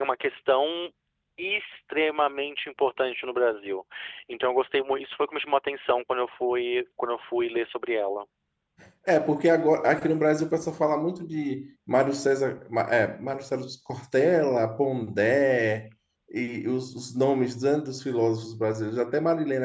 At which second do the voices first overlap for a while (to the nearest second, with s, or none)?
none